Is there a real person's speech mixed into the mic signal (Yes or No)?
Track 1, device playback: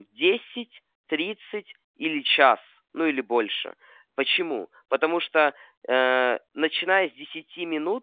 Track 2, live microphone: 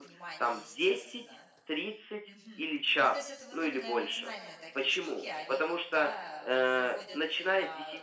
Yes